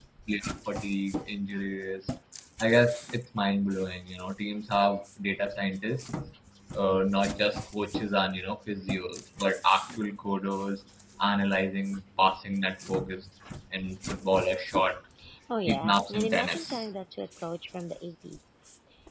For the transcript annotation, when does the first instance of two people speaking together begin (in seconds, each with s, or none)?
15.7 s